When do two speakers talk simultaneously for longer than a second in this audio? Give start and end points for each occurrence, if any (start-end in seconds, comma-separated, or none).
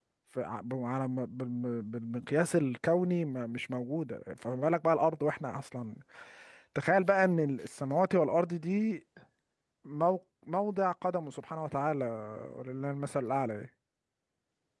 none